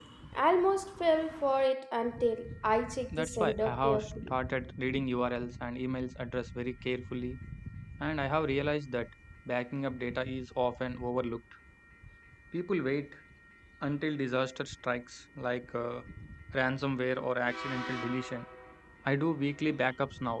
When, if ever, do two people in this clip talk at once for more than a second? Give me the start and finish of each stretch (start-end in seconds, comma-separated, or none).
3.1-4.3